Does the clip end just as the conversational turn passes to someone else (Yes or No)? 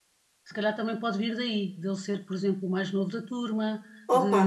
Yes